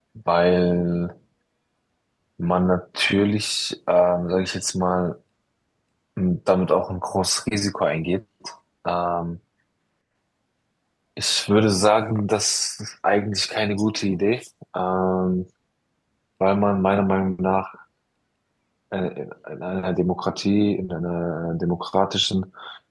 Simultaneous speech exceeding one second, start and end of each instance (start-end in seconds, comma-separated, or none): none